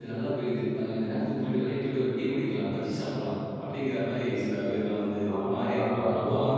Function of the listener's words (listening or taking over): taking over